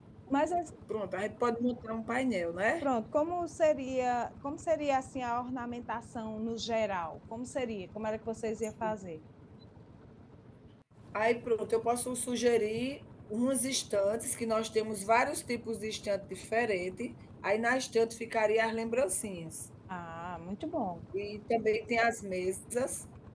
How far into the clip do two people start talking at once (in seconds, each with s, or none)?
none